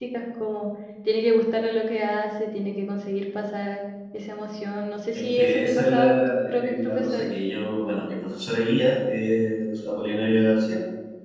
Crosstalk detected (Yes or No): Yes